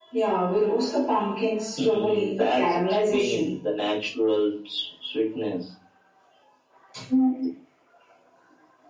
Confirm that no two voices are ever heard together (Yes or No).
No